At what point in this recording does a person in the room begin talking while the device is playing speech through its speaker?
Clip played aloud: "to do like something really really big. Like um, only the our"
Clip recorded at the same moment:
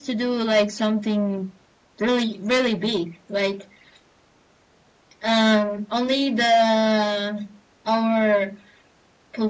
none

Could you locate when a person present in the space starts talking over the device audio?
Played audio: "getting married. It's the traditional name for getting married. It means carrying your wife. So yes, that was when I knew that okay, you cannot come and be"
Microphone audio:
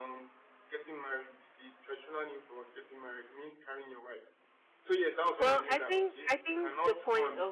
5 s

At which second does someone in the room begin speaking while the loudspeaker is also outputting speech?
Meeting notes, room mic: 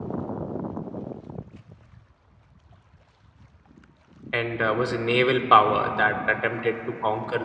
4 s

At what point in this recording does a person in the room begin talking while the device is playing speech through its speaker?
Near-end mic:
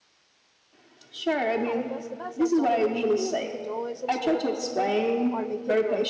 1 s

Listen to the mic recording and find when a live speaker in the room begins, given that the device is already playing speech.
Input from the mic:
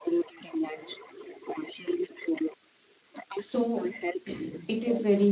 3 s

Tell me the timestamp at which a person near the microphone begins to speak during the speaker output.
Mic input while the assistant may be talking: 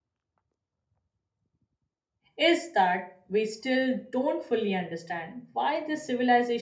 2 s

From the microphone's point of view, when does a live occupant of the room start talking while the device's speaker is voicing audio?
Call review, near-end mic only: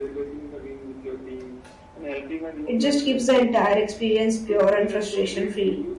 3 s

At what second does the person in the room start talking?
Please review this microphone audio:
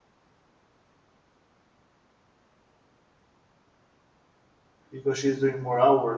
5 s

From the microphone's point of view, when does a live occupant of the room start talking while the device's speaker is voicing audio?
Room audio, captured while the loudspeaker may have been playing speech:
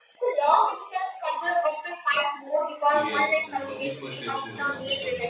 3 s

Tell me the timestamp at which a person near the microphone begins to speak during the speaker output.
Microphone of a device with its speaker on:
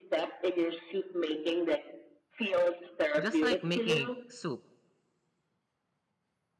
3 s

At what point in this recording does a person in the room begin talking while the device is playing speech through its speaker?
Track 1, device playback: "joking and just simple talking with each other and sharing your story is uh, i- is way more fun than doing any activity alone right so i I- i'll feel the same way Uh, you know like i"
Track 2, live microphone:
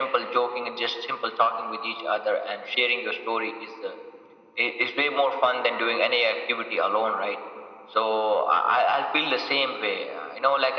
none

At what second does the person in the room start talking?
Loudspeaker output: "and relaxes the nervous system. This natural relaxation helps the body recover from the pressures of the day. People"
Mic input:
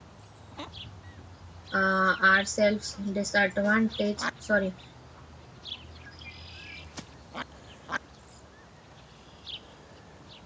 2 s

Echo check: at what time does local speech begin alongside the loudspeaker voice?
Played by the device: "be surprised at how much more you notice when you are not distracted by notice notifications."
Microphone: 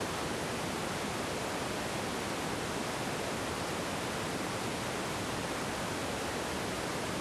none

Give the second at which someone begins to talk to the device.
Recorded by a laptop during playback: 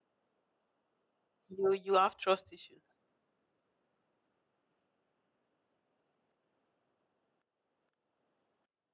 1 s

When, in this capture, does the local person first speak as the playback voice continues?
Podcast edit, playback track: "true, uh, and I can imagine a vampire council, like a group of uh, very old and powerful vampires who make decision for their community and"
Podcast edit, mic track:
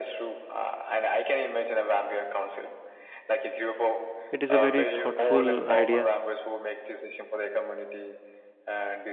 4 s

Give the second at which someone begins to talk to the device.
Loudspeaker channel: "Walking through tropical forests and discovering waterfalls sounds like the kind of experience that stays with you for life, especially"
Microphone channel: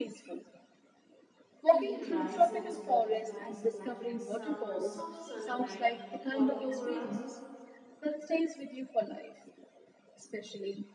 2 s

